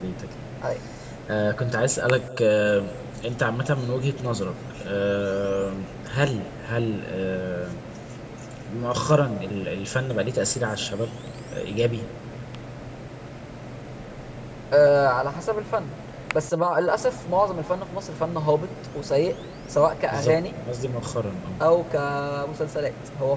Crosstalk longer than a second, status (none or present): none